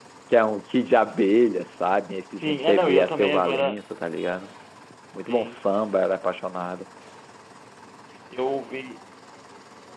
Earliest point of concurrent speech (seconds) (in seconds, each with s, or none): 2.3 s